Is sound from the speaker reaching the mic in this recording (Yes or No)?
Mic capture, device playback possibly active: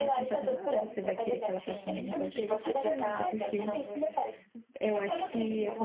Yes